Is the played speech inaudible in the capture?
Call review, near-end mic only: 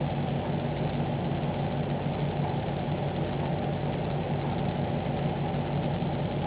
Yes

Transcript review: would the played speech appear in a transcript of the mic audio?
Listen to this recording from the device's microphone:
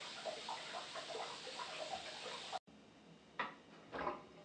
No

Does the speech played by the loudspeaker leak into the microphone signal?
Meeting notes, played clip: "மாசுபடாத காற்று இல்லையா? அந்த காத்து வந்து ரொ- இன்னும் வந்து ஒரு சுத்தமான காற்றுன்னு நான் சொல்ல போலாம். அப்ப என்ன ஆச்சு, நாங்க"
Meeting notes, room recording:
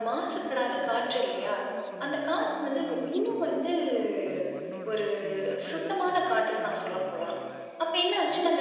Yes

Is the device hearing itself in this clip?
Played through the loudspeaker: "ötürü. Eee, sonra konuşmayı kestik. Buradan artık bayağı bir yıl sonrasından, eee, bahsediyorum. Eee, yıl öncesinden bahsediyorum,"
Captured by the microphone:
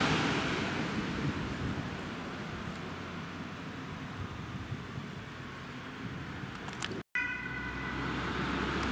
No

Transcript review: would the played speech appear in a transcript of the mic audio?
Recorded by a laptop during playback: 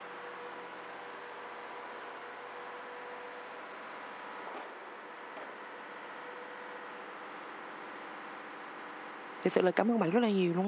No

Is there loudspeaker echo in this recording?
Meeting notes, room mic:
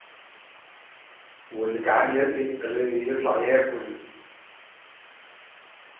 No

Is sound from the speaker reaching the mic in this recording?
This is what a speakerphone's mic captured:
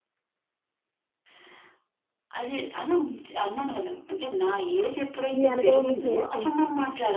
Yes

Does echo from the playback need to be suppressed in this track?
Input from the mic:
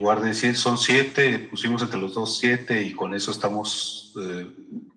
Yes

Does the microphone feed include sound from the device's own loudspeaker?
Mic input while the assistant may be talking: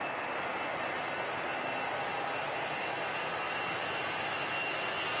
No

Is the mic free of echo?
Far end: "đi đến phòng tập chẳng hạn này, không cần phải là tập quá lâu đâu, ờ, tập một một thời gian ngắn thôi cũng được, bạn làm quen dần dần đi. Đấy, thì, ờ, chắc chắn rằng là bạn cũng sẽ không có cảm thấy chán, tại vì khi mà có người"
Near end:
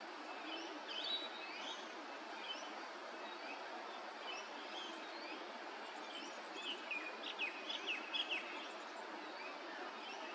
Yes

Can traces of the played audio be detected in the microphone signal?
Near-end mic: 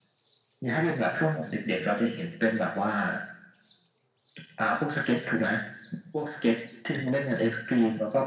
Yes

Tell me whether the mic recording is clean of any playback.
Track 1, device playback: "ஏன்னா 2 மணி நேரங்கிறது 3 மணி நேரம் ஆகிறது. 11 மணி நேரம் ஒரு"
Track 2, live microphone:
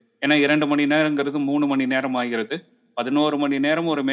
No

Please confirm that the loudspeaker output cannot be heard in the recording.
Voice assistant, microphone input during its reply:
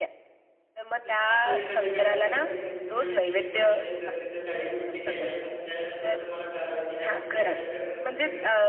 No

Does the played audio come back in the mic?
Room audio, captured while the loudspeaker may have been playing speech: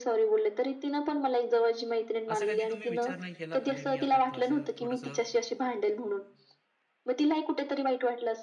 Yes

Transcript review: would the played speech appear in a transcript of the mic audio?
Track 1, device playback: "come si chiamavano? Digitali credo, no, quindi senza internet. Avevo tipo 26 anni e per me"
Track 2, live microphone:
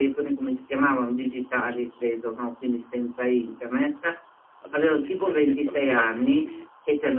Yes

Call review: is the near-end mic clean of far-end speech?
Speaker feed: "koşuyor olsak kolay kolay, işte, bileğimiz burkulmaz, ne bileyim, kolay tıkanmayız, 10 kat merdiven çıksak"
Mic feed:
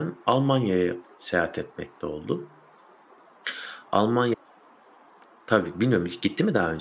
Yes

